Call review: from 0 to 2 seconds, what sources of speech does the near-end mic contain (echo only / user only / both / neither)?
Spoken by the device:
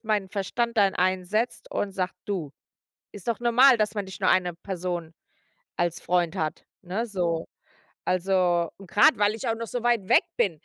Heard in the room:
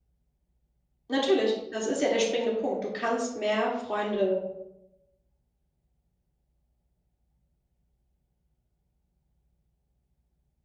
user only